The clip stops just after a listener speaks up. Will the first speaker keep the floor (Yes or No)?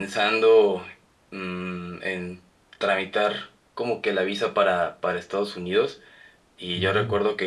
Yes